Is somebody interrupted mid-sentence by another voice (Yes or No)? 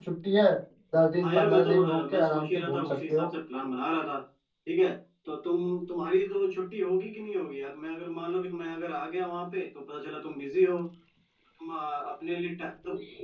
Yes